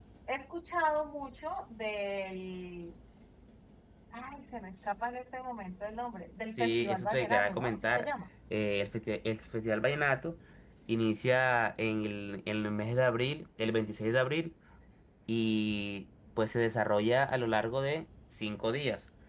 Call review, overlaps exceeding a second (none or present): present